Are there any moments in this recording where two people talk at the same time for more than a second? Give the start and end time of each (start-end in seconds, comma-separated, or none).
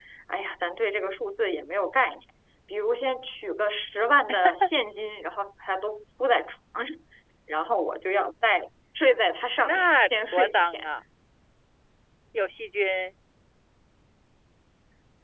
9.6-10.9